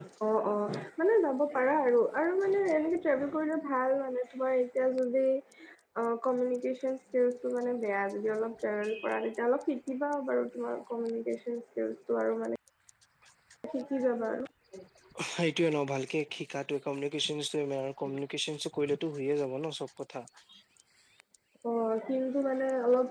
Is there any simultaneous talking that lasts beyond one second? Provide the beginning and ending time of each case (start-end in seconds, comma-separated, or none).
none